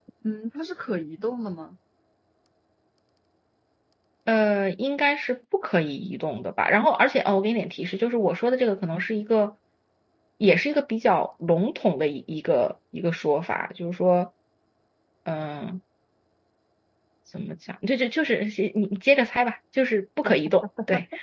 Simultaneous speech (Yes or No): No